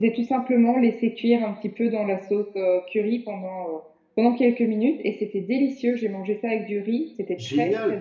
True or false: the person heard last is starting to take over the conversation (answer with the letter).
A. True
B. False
A